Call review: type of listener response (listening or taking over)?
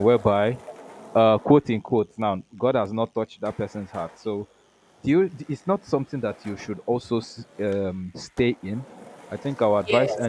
listening